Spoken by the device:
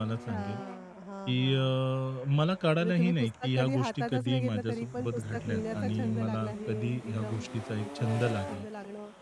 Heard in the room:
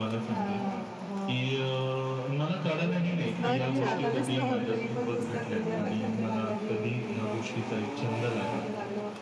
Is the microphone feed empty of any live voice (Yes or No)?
No